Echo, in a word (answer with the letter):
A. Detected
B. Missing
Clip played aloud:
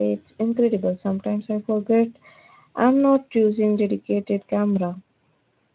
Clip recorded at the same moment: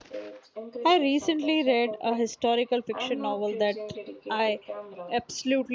A